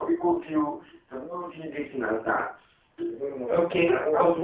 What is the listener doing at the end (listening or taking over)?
taking over